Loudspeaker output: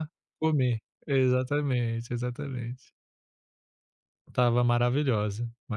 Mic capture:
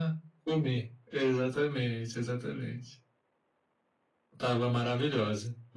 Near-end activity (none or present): none